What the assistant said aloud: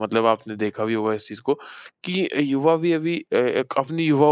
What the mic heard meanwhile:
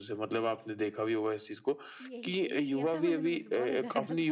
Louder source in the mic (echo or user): echo